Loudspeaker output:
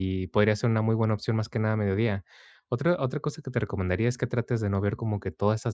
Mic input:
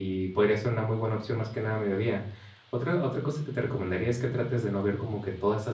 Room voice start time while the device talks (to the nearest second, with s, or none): none